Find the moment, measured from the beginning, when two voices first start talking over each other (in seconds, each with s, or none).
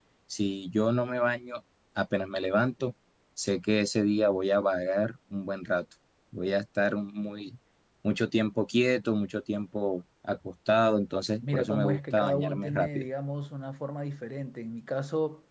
11.4 s